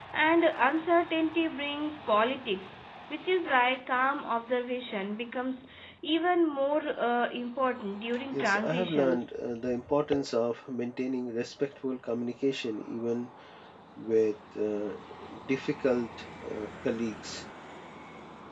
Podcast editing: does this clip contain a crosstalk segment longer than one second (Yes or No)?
Yes